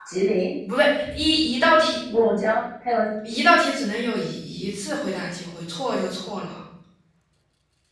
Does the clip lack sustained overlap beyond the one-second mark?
Yes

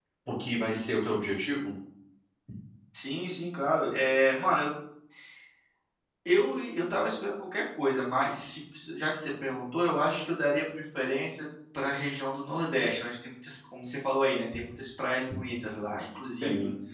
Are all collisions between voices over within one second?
Yes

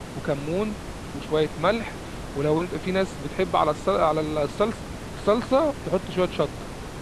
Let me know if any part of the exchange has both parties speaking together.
No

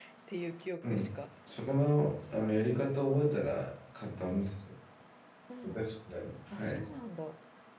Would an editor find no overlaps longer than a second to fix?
Yes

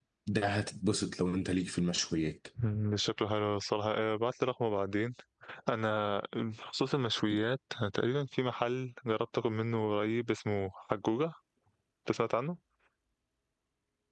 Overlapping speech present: No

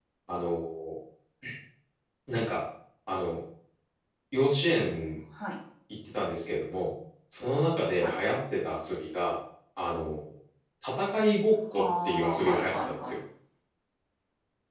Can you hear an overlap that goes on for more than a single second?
Yes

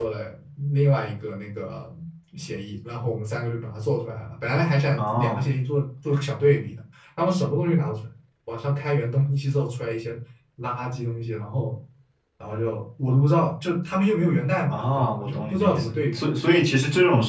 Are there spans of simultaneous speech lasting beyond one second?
Yes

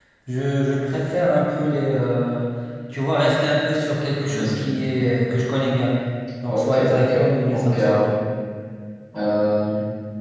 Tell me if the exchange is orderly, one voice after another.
No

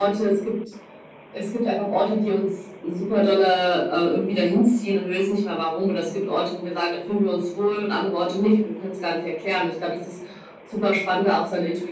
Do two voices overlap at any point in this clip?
No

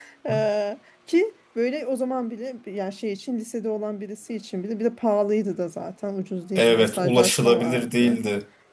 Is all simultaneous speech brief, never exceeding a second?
No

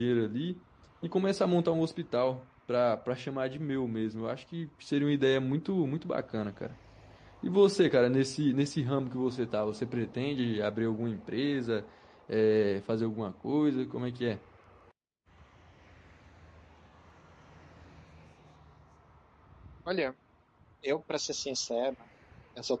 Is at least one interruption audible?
No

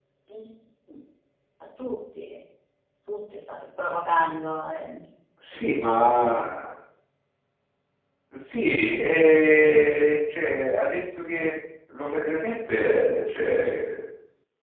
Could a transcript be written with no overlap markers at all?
Yes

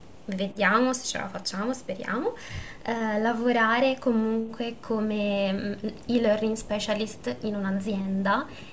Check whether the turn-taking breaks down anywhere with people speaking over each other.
No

